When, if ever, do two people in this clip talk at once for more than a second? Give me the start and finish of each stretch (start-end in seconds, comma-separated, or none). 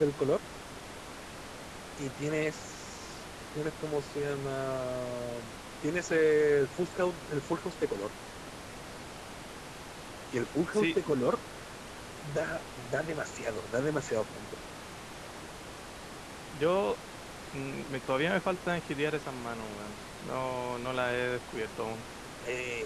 none